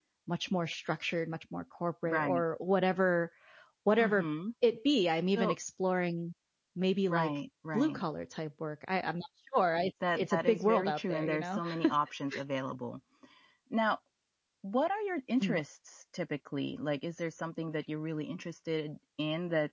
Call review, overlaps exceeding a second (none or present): present